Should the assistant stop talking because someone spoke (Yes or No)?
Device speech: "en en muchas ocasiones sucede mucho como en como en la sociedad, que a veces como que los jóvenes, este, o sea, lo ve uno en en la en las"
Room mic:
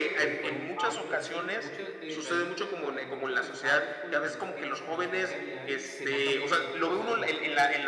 Yes